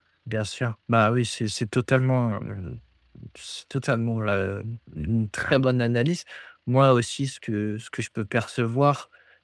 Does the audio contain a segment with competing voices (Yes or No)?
No